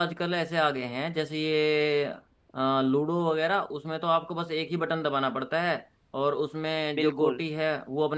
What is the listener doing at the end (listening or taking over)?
listening